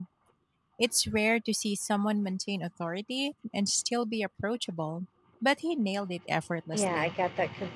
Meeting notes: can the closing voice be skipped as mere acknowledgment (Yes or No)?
No